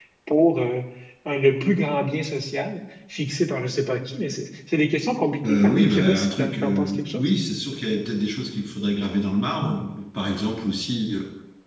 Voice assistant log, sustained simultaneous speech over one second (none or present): present